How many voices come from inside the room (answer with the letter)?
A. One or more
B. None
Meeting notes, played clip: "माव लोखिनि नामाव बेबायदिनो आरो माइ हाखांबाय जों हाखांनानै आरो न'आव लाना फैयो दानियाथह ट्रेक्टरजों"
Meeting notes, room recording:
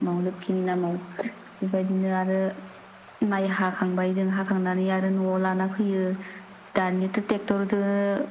B